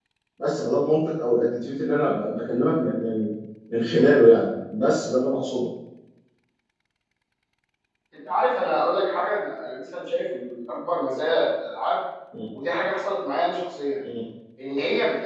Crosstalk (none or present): none